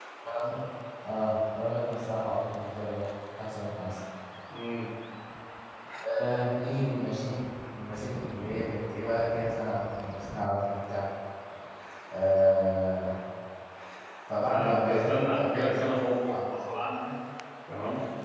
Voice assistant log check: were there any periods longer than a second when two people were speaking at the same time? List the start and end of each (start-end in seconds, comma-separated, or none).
14.4-16.0